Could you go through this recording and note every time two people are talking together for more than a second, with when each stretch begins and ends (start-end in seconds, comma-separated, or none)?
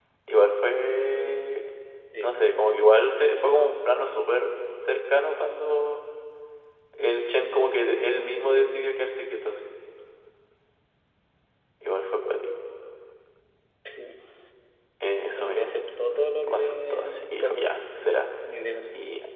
16.5-17.7